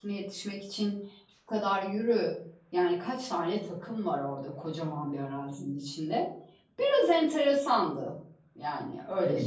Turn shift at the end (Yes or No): Yes